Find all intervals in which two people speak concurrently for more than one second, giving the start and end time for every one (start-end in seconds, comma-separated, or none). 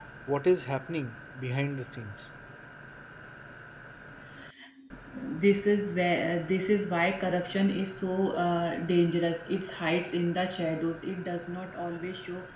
none